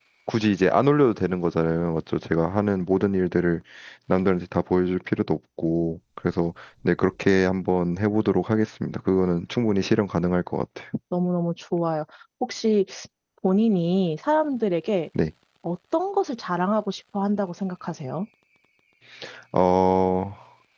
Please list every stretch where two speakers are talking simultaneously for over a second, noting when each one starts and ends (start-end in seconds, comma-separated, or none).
none